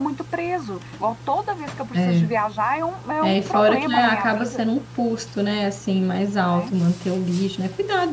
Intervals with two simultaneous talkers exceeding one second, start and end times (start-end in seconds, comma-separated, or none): 3.2-4.6